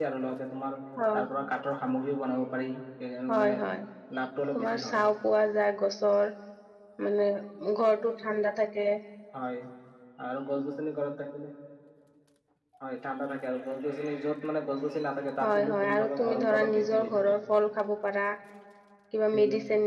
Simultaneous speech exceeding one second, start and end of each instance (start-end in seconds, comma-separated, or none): 15.4-17.4